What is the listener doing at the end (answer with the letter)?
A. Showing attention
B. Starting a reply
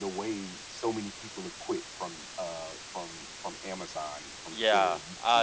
B